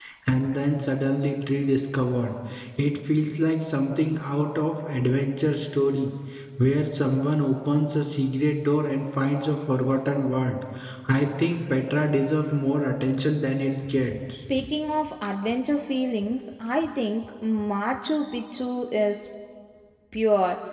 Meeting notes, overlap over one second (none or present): none